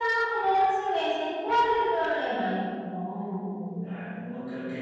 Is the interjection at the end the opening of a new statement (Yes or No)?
Yes